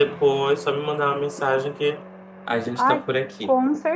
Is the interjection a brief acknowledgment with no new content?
No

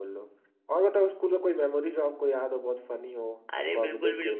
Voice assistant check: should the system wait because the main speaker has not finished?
No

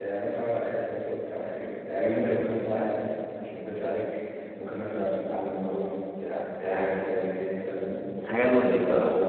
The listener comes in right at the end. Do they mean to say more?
No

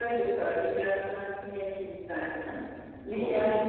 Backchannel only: Yes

